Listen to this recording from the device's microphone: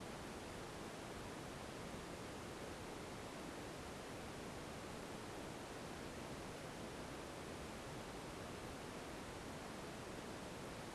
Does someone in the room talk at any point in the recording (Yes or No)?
No